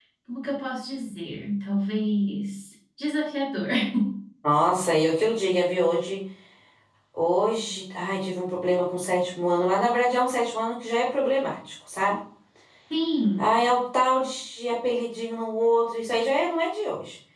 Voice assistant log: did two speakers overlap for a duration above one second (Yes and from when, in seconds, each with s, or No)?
No